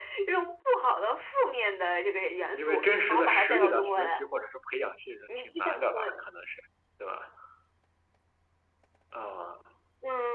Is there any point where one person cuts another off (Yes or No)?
Yes